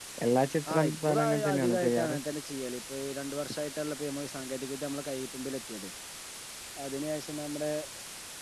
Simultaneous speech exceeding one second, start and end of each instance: 0.7-2.1

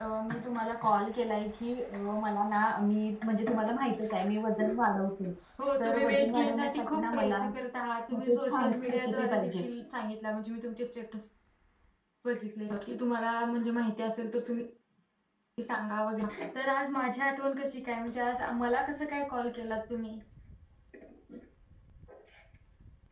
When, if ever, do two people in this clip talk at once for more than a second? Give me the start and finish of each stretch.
5.8-7.3, 8.1-9.5

